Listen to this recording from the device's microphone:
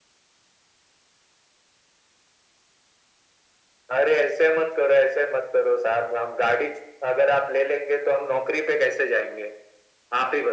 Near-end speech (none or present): none